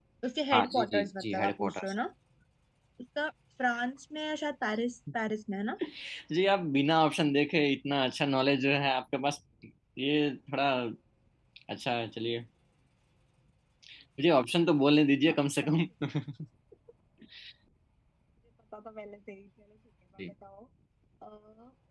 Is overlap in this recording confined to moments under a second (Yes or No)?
No